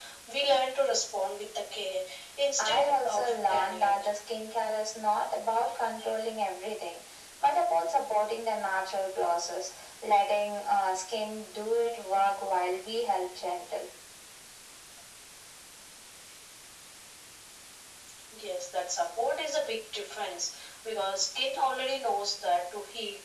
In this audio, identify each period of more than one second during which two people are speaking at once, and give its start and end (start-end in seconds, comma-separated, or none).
2.6-4.0